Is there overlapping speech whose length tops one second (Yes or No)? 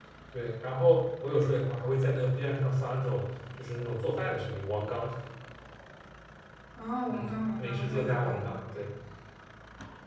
Yes